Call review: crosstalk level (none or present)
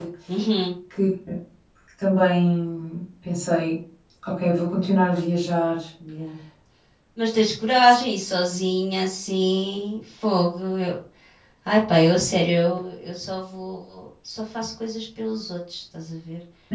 none